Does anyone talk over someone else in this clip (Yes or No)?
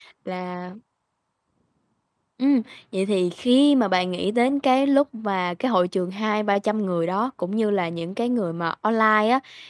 No